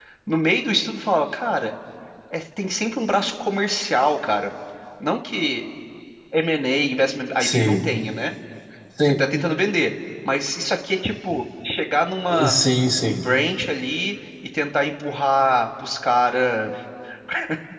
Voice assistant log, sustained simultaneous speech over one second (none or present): none